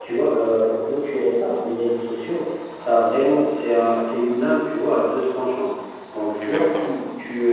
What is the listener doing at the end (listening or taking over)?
listening